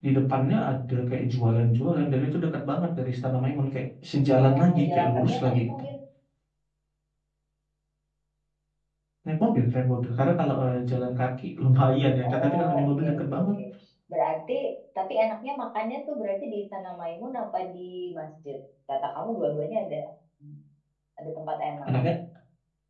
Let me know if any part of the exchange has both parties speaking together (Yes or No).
Yes